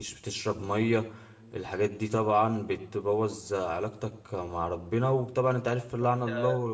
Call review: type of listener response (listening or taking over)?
listening